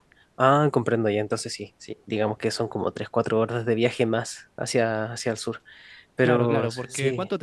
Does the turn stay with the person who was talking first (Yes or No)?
No